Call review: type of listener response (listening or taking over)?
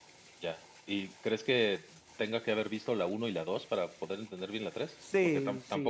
taking over